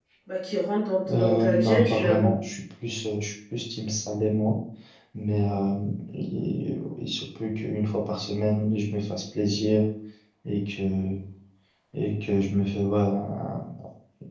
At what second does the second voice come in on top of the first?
1 s

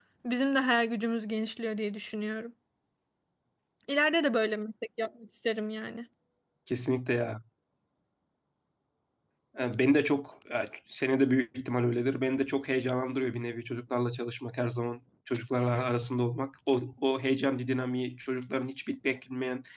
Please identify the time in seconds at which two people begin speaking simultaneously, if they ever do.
none

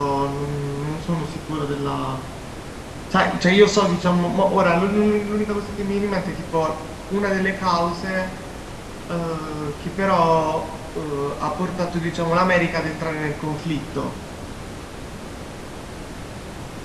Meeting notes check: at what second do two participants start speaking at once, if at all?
none

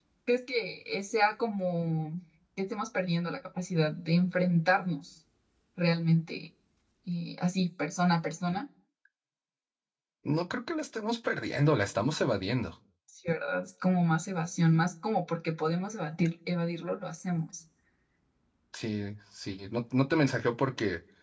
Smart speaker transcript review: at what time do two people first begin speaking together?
none

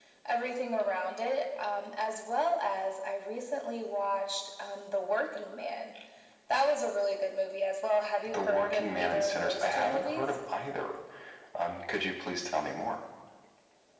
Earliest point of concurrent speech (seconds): 8 s

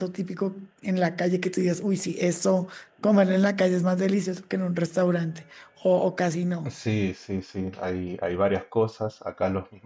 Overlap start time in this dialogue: none

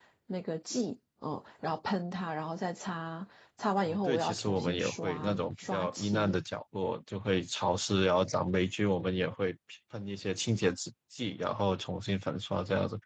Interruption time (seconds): 4 s

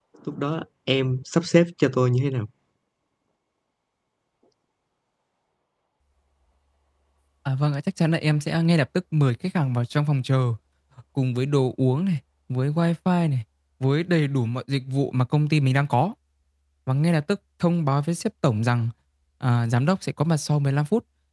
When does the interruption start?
none

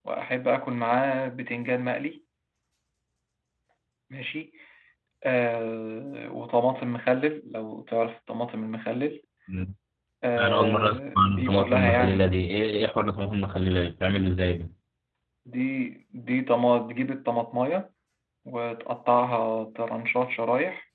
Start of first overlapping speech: 10 s

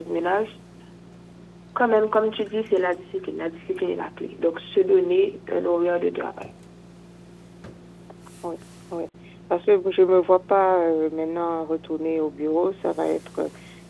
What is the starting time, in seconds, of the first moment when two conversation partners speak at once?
none

